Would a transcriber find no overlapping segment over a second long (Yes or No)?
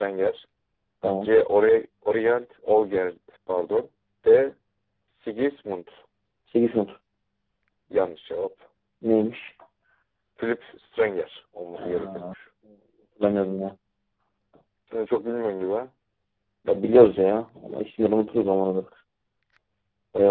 Yes